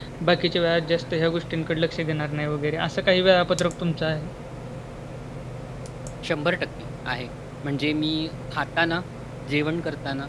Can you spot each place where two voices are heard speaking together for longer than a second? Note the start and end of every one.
none

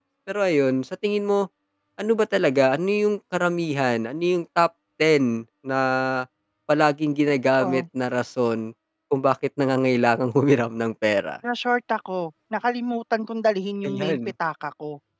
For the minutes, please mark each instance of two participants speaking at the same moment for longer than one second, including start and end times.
none

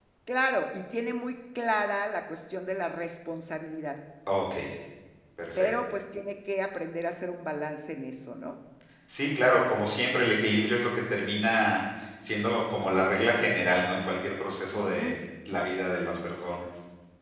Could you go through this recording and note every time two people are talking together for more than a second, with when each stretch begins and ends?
none

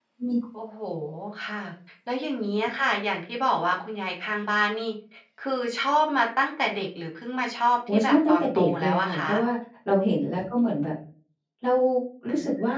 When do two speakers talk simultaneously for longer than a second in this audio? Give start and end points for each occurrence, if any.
7.9-9.3

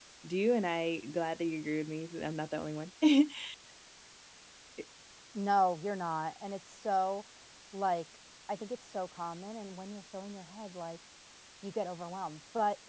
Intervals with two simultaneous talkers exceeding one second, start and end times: none

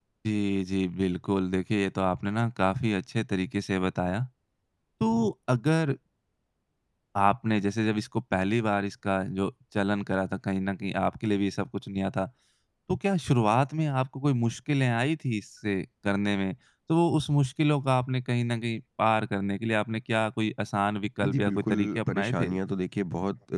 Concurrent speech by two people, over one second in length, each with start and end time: 21.2-22.6

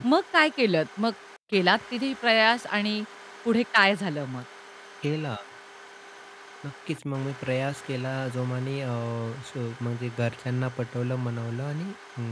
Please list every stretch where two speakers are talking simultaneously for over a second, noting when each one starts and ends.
none

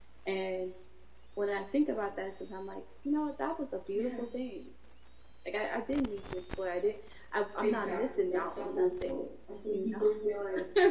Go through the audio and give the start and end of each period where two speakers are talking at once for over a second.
7.6-9.2

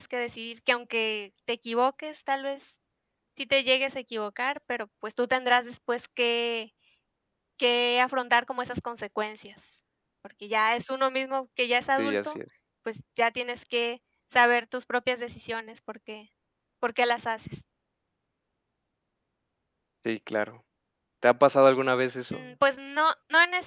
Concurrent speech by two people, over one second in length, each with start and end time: none

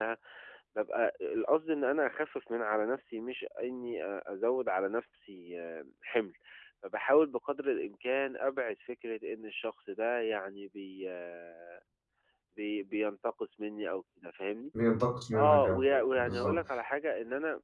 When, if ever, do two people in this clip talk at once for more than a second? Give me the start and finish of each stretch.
15.3-16.6

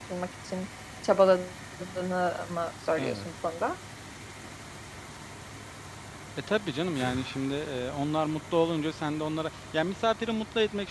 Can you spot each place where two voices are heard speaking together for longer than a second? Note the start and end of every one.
none

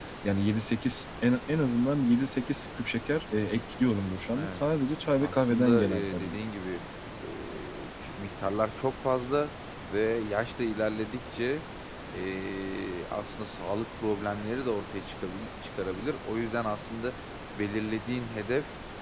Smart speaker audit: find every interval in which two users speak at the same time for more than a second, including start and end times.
5.2-6.4

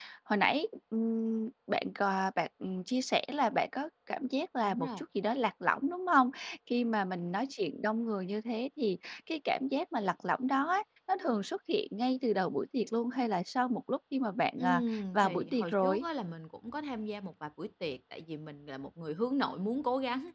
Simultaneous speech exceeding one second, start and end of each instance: 14.6-16.1

